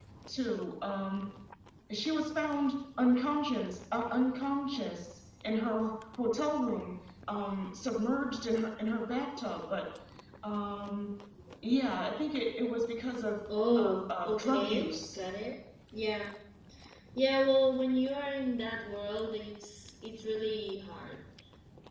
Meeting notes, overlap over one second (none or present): present